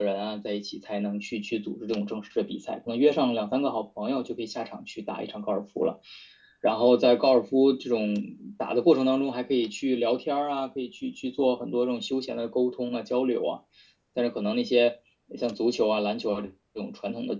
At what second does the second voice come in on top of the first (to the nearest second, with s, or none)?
none